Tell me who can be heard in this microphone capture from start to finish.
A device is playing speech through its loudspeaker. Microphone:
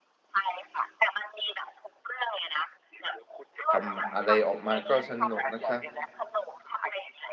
both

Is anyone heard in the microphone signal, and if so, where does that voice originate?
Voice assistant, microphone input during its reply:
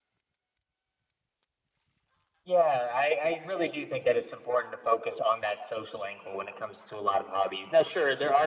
echo only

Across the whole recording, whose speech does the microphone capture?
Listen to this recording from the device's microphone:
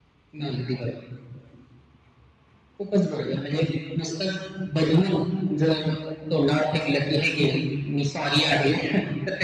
echo only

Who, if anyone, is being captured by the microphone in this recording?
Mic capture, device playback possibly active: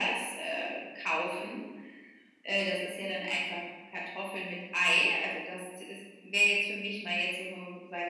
echo only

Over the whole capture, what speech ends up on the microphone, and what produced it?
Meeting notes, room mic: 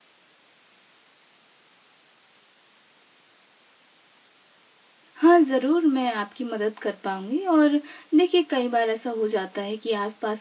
user only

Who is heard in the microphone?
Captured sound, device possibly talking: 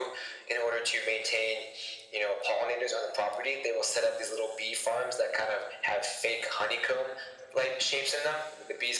echo only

